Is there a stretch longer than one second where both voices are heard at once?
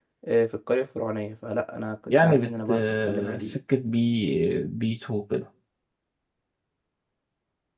Yes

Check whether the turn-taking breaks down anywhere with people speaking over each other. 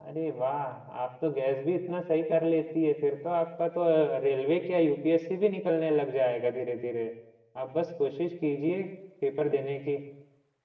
No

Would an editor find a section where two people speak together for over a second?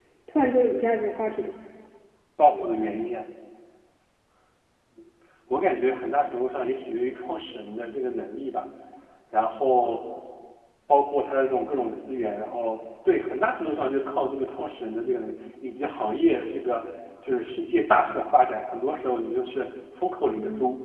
No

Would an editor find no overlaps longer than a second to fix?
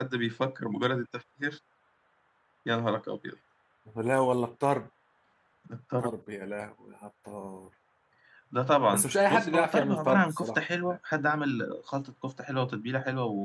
No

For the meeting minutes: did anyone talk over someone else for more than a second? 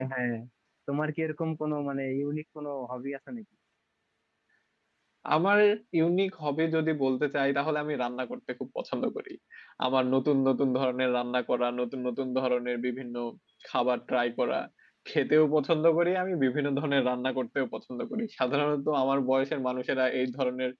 No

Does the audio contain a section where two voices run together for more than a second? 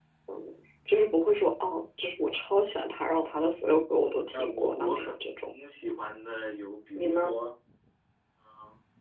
Yes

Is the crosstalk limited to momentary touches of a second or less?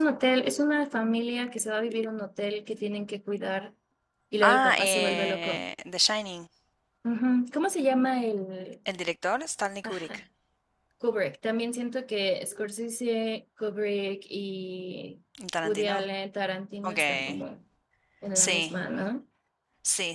No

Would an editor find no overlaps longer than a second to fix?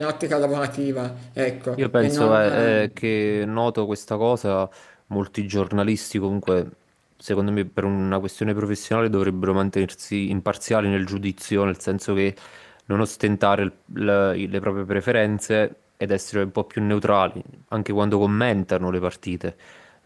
No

